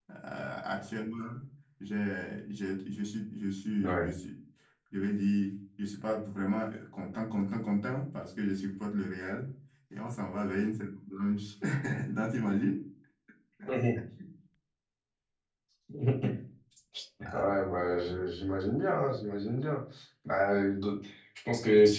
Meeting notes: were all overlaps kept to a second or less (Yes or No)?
Yes